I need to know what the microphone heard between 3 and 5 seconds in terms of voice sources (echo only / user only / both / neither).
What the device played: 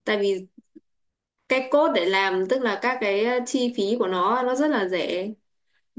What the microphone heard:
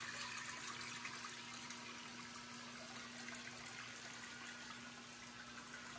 neither